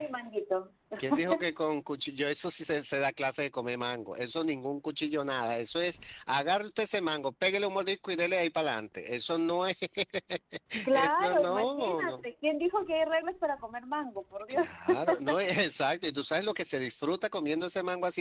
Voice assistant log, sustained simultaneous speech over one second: present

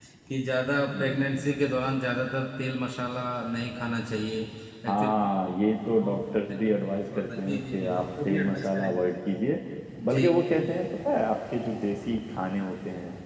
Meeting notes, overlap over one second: present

